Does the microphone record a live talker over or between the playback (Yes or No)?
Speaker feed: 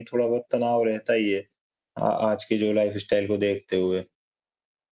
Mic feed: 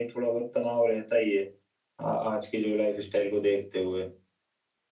No